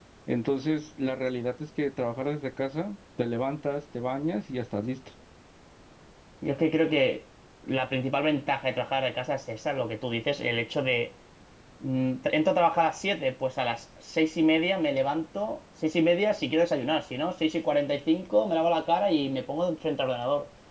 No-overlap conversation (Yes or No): Yes